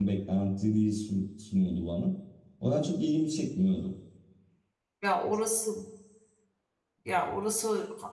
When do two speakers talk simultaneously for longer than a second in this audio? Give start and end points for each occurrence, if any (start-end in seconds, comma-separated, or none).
none